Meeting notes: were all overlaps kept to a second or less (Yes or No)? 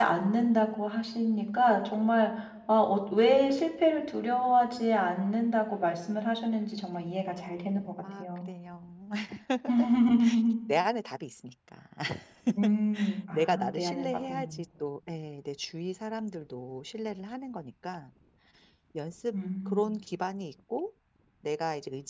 No